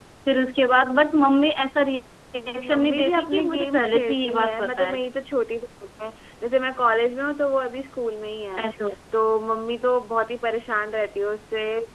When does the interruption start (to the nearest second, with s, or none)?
2 s